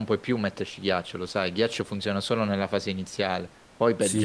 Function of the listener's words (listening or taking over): taking over